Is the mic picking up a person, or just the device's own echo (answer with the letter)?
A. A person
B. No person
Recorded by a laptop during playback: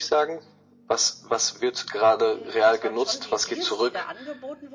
A